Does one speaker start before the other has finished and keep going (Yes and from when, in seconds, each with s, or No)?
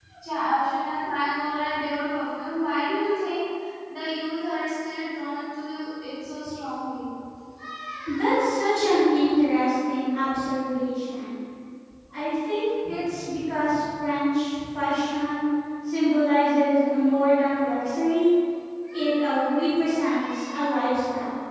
No